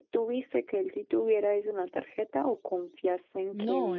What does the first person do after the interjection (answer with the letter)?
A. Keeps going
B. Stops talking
B